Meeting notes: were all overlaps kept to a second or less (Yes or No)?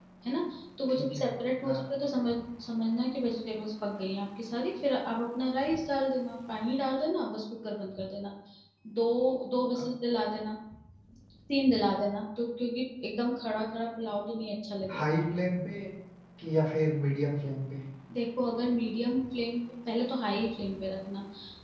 Yes